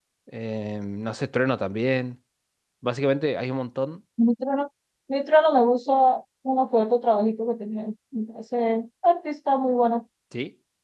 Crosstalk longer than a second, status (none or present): none